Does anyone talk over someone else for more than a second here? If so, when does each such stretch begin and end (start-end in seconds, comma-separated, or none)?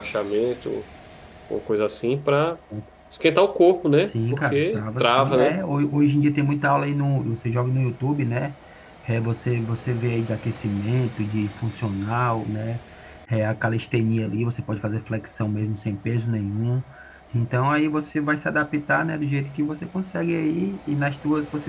4.0-5.6